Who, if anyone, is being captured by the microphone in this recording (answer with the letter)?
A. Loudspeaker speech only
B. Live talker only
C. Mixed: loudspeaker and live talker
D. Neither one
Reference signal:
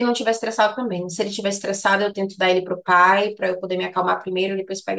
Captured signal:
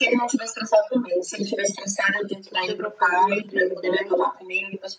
C